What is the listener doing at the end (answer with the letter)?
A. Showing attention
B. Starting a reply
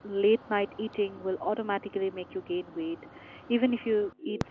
A